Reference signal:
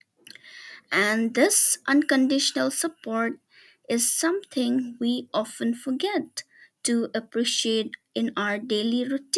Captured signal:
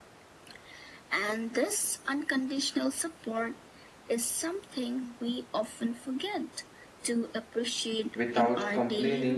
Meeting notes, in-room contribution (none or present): present